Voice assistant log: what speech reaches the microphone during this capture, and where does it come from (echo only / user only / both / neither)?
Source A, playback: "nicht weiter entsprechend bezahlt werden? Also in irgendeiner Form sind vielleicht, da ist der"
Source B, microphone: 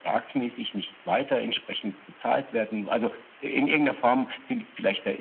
echo only